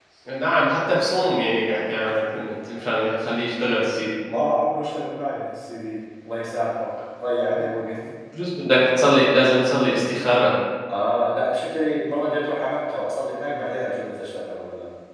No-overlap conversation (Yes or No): Yes